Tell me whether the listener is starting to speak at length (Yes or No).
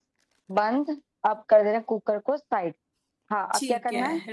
Yes